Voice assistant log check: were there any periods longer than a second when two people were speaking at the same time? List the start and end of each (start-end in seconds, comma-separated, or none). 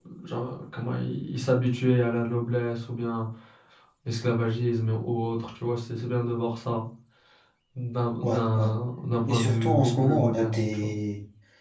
9.3-10.9